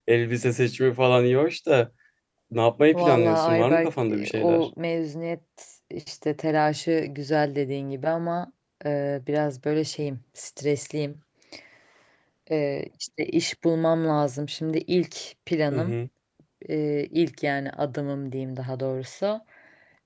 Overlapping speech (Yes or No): Yes